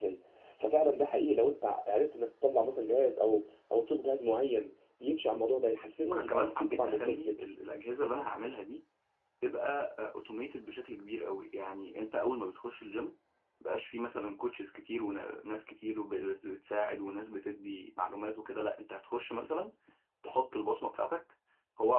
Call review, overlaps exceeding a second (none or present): present